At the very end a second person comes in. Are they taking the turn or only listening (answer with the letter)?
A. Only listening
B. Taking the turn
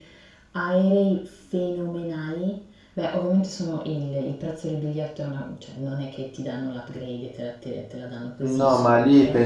B